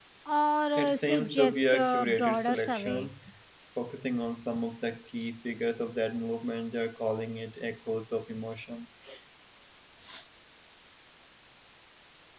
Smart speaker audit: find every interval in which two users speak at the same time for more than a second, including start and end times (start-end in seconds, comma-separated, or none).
0.8-3.1